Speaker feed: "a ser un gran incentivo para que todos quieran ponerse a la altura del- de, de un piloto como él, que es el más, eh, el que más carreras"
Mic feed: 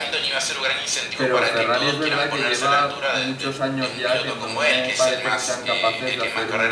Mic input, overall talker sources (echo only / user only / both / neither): both